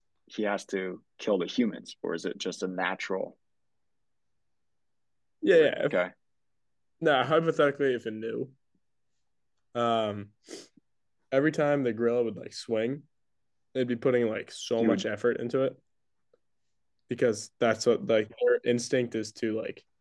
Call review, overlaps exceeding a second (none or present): none